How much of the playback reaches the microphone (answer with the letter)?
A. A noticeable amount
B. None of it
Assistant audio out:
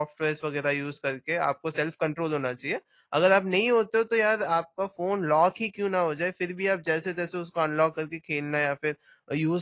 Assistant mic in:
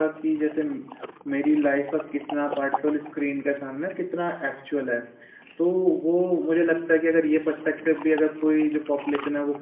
B